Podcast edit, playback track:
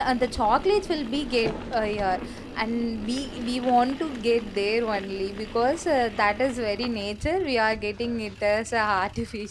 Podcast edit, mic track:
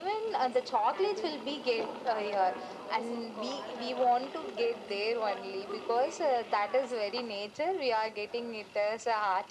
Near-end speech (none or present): present